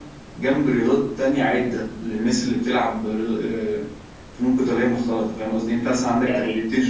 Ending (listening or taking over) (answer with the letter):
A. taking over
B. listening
B